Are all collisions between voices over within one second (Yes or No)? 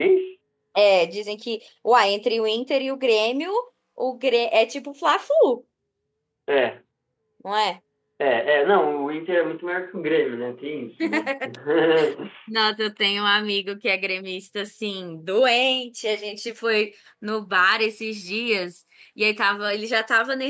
Yes